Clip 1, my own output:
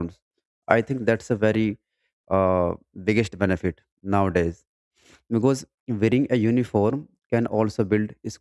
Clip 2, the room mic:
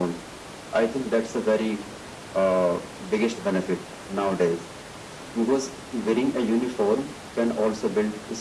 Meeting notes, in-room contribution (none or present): none